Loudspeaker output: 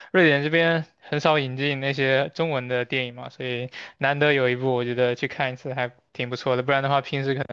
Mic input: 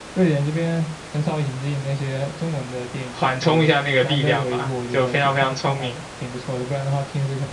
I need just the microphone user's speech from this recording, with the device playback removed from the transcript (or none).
缓冲一下那个力量吧，就非常非常聪明。